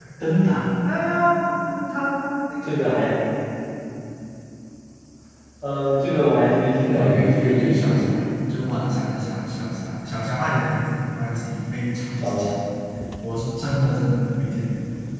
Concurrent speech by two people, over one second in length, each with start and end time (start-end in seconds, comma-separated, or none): 6.9-8.2